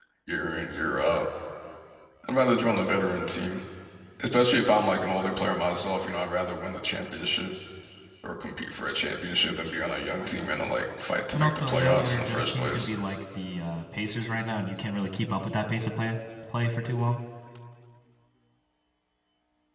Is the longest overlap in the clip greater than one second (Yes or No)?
Yes